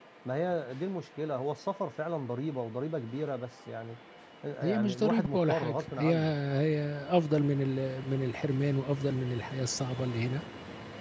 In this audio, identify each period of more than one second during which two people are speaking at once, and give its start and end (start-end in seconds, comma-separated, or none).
4.6-6.1